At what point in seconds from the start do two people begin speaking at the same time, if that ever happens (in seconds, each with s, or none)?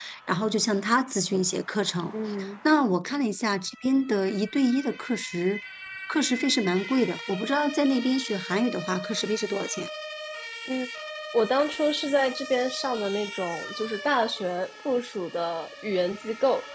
none